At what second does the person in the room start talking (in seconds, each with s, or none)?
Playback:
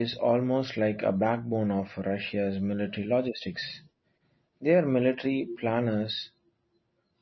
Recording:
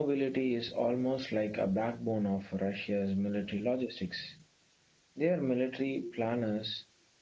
none